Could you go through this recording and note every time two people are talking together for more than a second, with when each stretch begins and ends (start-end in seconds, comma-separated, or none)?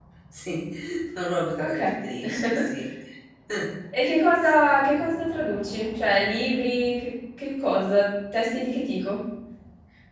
none